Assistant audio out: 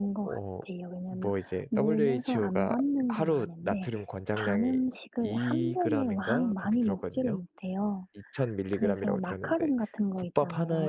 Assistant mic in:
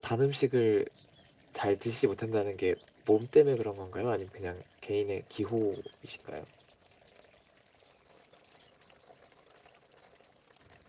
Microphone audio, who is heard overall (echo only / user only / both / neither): user only